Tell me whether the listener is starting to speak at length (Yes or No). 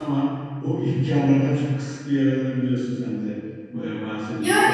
Yes